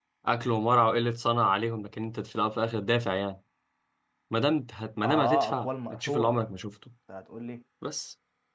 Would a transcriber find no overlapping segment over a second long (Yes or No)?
No